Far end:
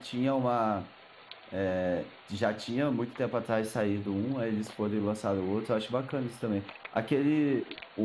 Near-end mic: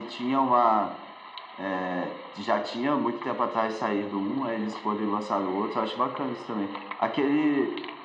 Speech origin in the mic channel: echo only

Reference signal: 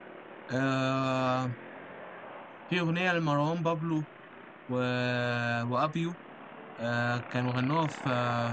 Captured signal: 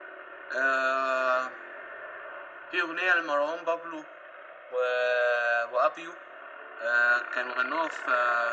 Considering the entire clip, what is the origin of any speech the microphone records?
echo only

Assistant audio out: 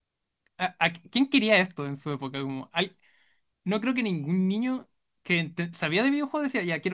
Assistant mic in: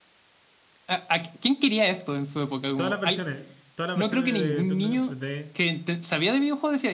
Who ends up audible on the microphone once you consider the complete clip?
both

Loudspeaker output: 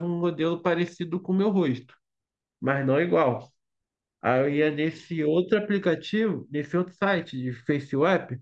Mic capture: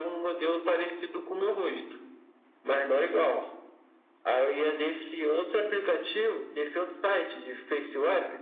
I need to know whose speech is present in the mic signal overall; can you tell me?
echo only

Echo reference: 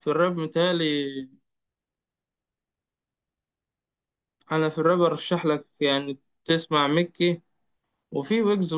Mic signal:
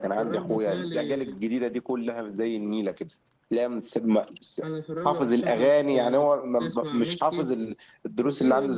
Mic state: both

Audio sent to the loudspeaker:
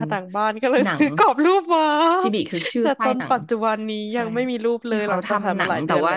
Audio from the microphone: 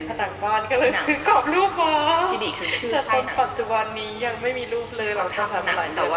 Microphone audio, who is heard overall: echo only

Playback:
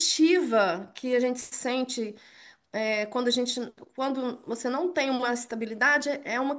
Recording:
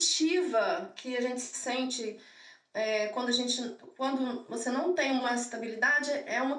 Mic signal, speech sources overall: echo only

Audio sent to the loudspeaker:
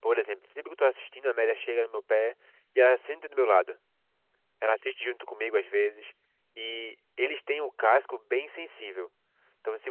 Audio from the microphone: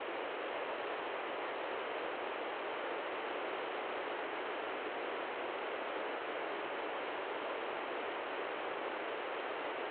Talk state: neither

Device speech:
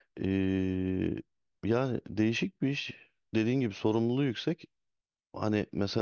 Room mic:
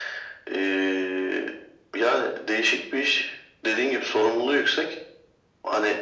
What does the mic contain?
echo only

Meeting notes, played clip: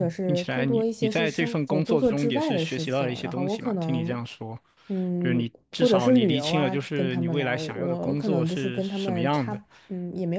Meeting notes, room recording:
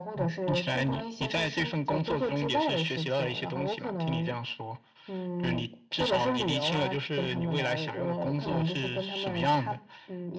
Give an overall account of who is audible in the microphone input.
echo only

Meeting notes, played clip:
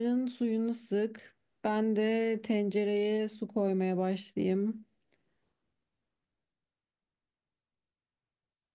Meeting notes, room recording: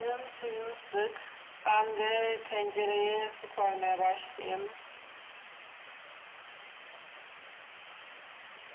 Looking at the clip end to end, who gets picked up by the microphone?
echo only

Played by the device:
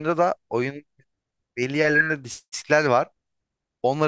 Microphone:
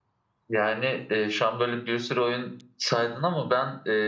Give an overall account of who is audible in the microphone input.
user only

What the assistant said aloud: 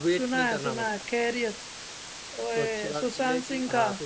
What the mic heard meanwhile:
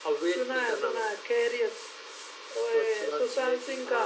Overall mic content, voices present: echo only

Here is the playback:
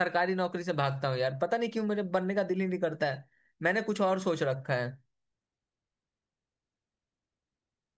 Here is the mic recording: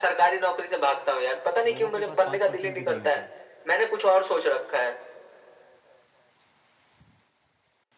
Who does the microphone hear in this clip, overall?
both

